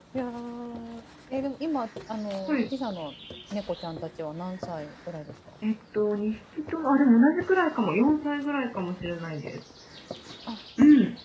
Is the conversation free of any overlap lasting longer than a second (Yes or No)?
Yes